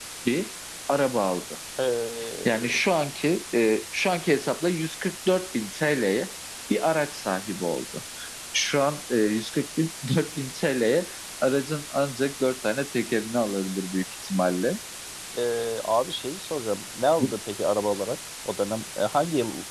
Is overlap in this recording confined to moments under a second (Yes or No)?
Yes